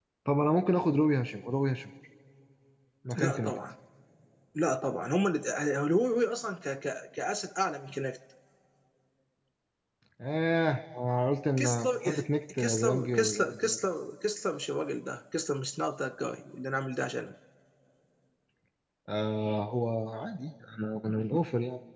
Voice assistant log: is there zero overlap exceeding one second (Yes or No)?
No